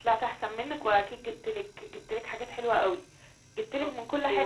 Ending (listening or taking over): listening